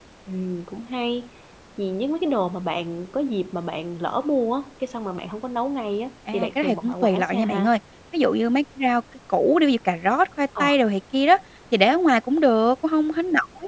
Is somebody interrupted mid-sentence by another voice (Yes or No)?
Yes